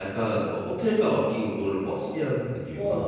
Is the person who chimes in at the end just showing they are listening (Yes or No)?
No